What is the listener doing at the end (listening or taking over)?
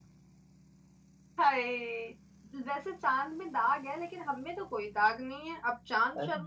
listening